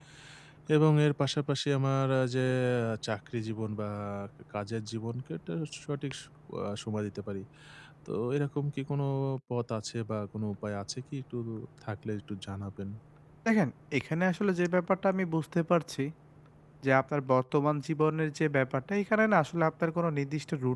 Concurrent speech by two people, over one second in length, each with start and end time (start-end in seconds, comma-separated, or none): none